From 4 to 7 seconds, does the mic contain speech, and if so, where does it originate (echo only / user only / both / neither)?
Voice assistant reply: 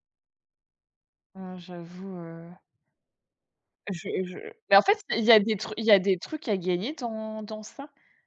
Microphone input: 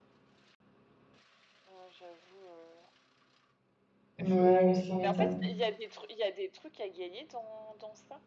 both